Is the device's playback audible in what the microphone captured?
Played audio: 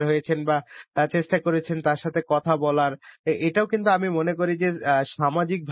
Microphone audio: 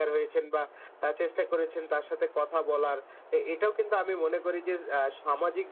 Yes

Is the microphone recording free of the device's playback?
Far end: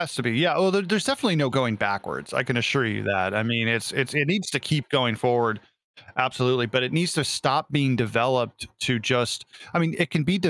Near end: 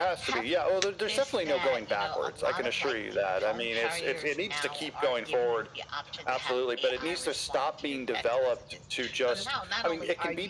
No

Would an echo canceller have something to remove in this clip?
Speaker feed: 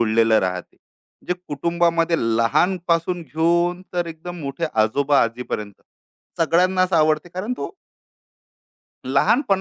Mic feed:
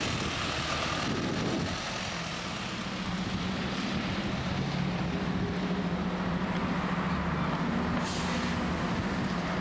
No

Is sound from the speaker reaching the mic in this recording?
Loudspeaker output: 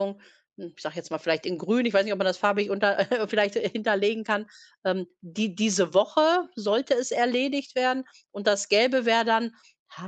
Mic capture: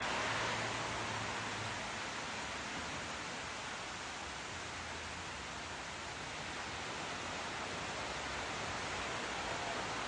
No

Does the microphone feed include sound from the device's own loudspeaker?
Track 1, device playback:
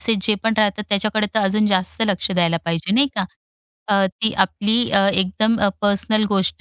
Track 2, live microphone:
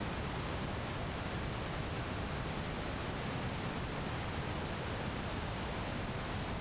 No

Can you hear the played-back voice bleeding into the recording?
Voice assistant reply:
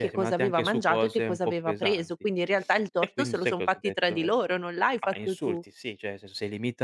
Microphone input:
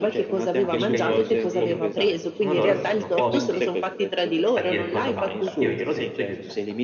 Yes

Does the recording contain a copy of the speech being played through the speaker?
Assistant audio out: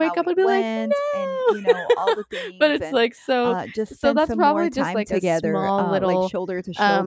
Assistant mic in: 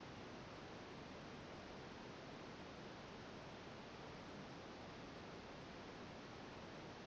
No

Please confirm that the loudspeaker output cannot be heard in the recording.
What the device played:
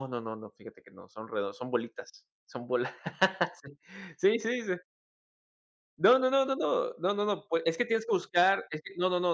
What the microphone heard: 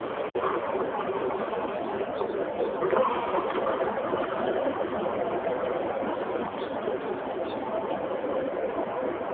Yes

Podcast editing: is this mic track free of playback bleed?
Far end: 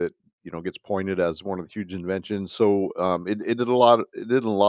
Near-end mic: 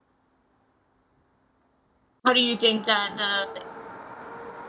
Yes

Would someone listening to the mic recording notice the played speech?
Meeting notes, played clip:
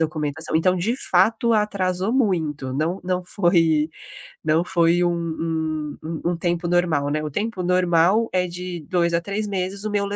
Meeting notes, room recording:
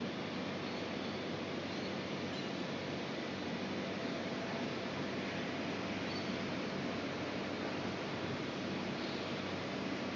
No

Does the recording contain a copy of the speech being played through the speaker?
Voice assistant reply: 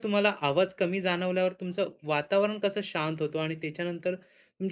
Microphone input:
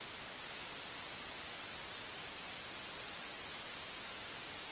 No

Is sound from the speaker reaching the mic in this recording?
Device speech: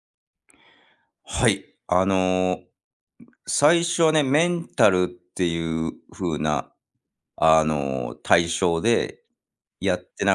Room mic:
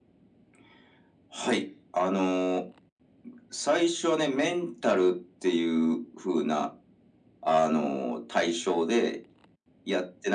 Yes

